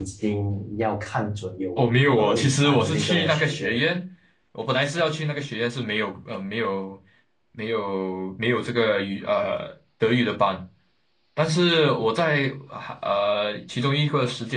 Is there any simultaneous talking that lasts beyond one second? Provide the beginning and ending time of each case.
1.8-3.8

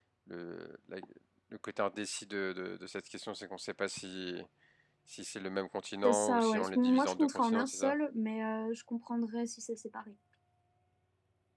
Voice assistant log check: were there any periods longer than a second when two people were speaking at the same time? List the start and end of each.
6.0-7.9

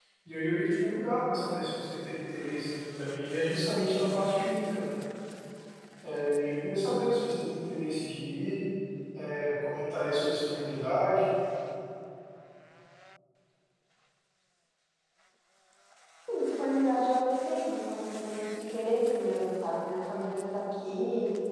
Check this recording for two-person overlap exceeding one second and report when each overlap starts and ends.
none

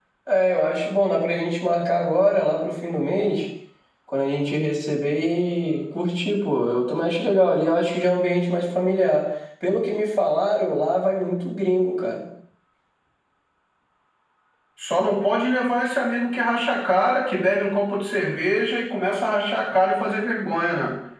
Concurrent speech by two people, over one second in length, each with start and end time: none

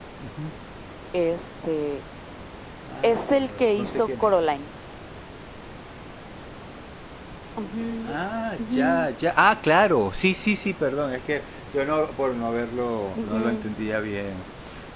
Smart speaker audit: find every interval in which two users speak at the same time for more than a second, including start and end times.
3.0-4.3

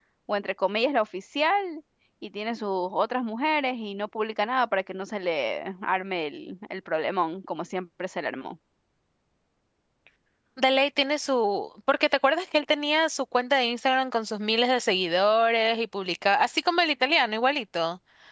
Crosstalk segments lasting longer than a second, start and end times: none

